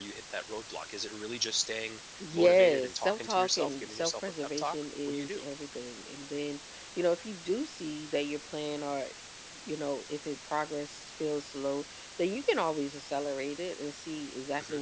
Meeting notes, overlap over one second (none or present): present